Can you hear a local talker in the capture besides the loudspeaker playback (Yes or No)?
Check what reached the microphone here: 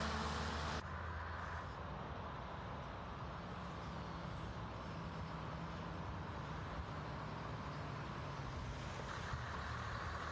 No